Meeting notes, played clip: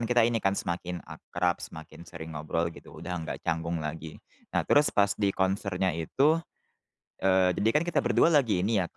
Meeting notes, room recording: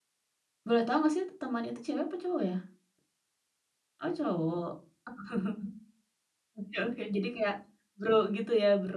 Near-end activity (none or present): present